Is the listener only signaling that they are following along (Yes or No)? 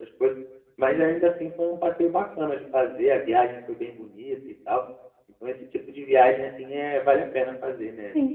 No